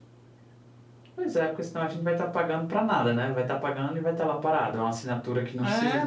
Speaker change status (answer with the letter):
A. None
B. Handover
B